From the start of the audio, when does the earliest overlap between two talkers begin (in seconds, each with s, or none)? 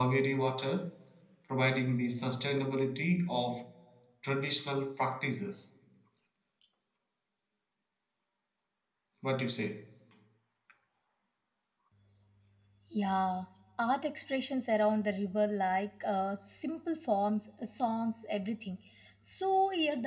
none